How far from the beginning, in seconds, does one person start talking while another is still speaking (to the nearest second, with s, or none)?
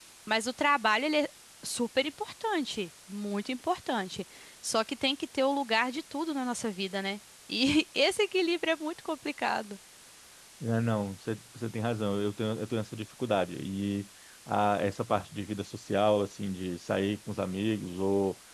none